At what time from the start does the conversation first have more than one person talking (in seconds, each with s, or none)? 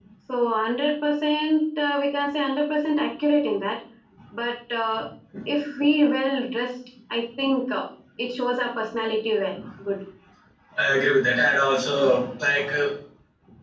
none